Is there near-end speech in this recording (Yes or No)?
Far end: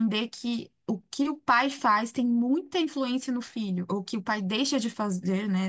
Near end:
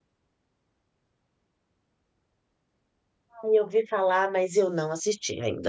Yes